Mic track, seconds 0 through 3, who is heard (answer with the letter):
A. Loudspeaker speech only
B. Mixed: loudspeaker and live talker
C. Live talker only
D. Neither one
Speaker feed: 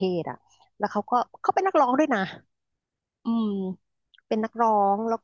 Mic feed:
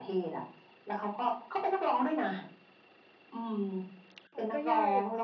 A